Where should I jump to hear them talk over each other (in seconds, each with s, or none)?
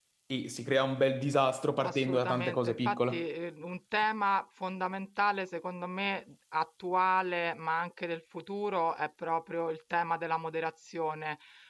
1.8 s